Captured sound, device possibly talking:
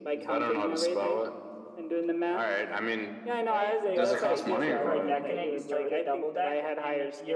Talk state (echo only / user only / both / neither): both